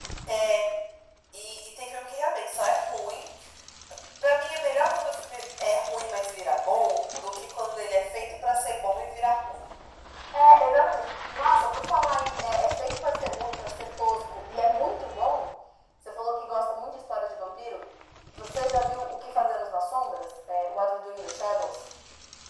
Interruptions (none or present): none